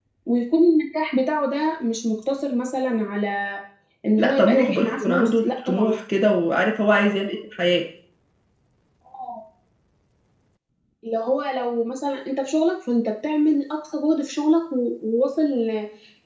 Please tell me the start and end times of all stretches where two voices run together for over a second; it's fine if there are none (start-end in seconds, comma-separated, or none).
4.2-6.0